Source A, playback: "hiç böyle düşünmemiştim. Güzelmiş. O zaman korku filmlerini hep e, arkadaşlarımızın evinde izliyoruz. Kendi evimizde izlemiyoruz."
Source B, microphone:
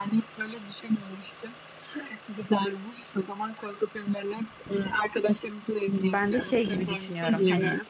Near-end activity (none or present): present